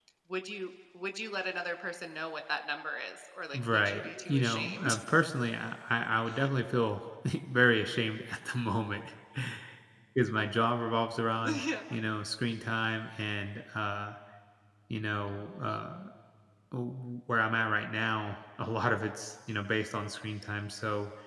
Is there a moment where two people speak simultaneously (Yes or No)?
Yes